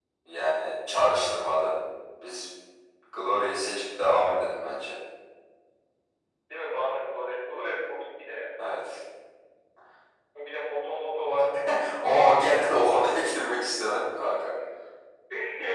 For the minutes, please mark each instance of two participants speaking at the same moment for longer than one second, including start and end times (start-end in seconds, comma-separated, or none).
none